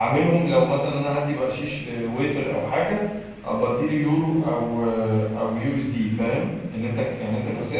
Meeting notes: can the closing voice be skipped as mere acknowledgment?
Yes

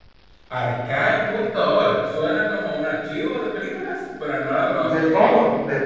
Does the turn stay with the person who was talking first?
No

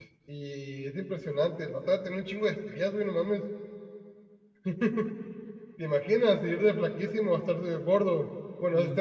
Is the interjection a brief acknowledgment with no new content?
Yes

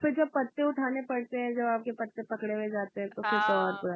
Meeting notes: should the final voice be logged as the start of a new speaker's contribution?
Yes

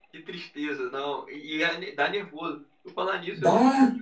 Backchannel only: Yes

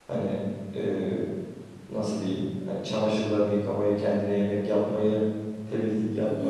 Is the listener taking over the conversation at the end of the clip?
Yes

